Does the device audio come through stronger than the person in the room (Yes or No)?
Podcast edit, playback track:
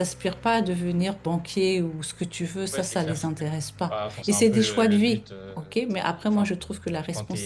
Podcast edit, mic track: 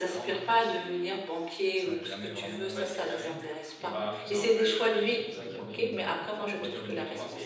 Yes